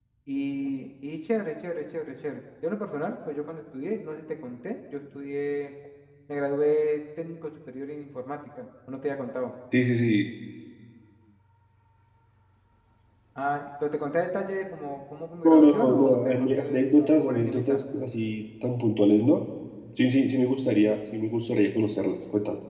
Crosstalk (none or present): present